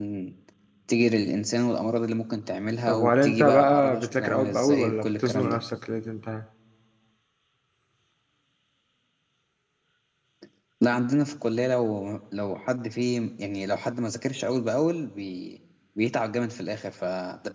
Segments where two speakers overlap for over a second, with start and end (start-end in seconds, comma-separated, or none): 2.9-5.6